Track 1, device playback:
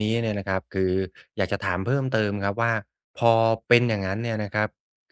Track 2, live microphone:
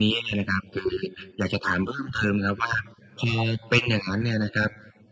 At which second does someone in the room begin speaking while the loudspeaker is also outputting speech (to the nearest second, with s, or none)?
none